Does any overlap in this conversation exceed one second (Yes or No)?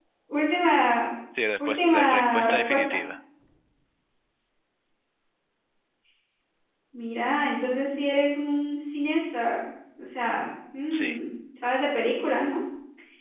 Yes